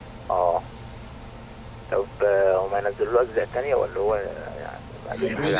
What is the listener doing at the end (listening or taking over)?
taking over